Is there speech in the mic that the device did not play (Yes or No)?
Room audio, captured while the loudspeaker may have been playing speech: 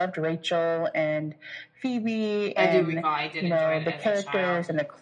Yes